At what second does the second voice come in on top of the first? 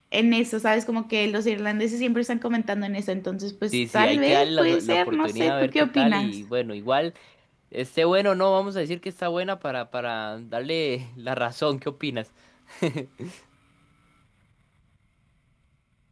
3.7 s

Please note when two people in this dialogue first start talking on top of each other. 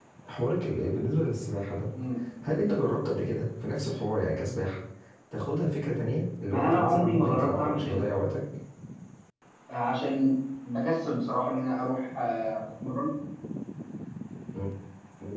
6.5 s

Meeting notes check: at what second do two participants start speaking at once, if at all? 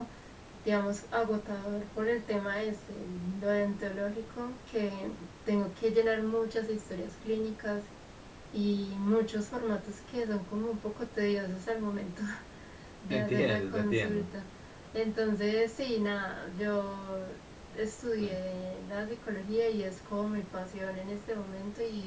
13.1 s

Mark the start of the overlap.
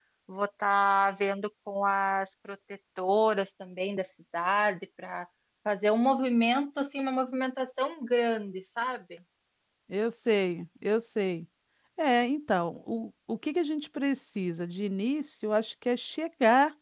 none

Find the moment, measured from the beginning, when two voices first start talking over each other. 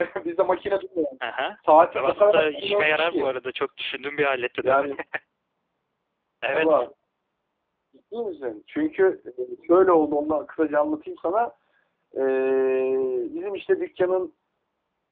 1.9 s

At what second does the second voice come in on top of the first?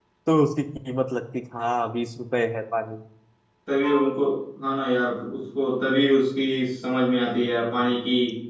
none

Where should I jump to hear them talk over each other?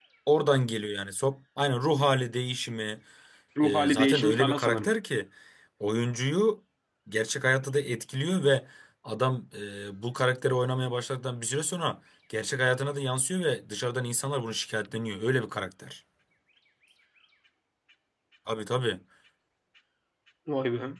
3.6 s

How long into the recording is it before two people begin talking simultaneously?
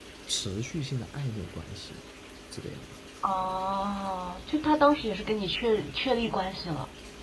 none

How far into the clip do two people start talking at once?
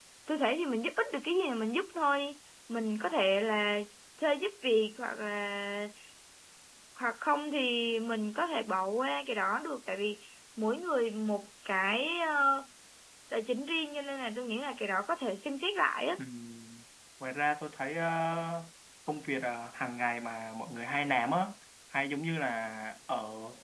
none

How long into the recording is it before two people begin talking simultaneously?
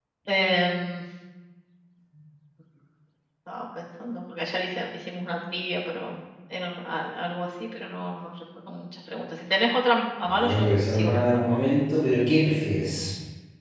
10.2 s

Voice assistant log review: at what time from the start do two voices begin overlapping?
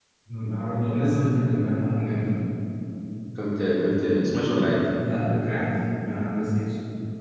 none

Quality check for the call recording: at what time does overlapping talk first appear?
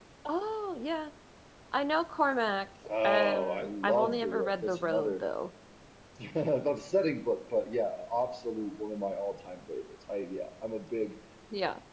2.8 s

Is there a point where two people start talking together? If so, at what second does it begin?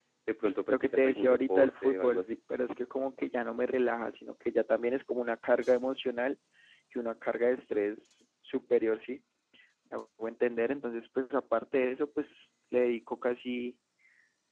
0.7 s

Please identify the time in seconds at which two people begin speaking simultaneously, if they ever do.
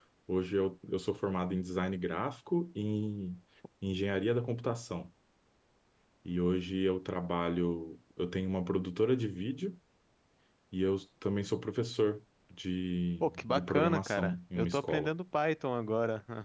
13.2 s

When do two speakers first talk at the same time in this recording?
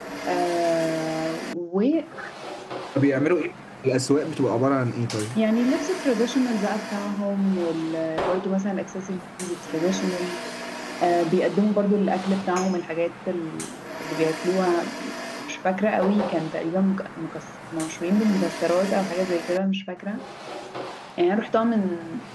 none

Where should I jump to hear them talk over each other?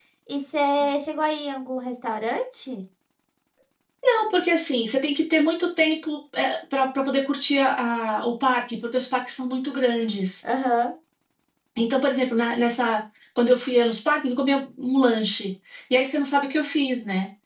none

